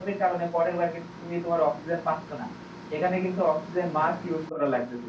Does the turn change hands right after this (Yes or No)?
No